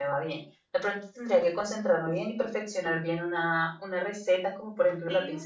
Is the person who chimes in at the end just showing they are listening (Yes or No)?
Yes